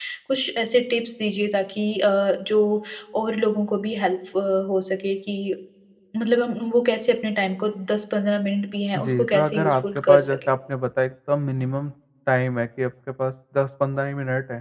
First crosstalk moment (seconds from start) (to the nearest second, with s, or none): 9 s